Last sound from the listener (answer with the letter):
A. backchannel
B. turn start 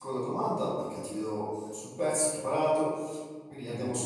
A